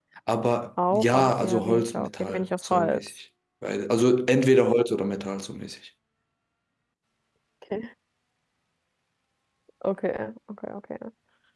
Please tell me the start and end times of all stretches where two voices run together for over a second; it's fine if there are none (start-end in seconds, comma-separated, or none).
0.9-3.1